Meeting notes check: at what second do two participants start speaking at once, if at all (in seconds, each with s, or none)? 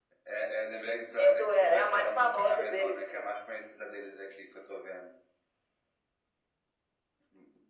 1.4 s